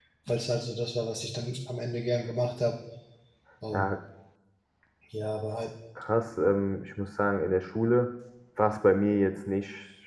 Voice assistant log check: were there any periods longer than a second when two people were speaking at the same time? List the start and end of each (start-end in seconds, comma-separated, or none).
none